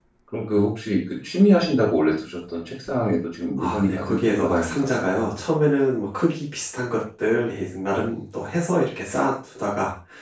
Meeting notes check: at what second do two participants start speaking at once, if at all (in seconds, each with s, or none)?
3.6 s